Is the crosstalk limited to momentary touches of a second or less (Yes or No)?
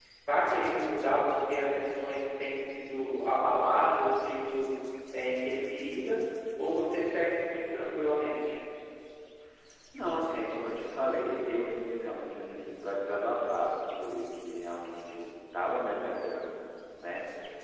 Yes